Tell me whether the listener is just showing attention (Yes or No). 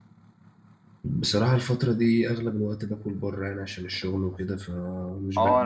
No